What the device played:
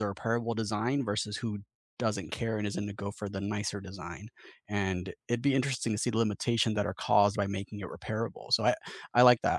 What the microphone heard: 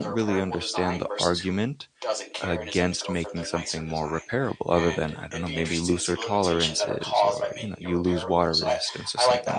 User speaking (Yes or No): Yes